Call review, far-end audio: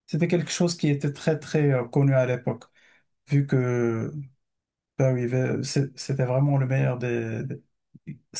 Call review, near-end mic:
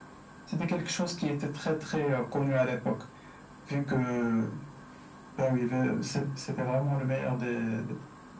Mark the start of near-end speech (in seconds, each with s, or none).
none